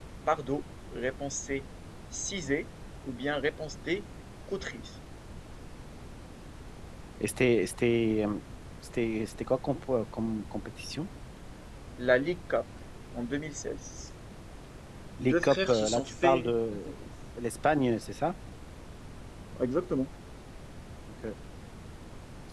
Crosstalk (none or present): present